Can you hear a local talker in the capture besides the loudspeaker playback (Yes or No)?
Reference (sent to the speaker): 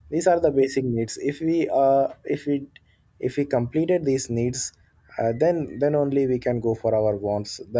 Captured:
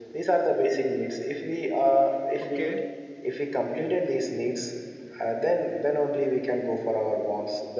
Yes